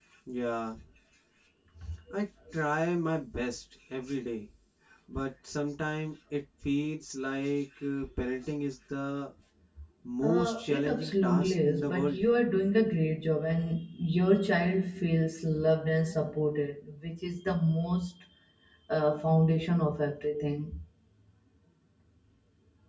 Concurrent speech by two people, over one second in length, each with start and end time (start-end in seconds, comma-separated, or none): 10.2-12.2